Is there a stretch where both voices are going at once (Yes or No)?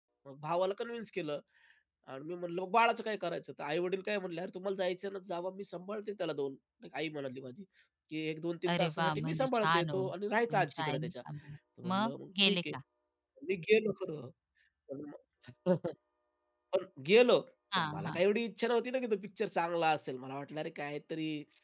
Yes